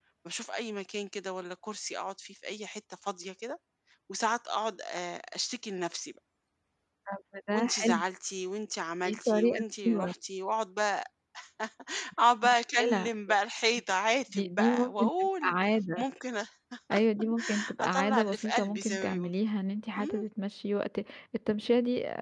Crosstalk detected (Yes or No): Yes